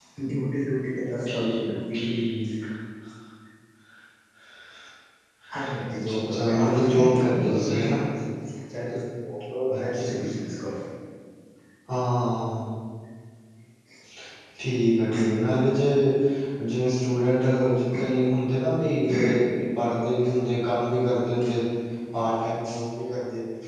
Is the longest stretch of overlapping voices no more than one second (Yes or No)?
No